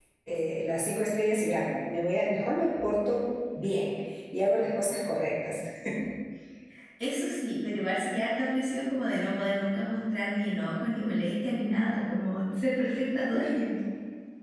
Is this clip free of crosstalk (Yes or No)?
Yes